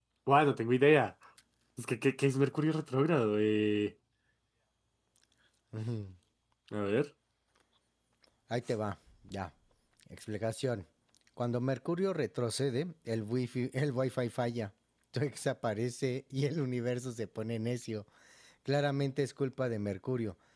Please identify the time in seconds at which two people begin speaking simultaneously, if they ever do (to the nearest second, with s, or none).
none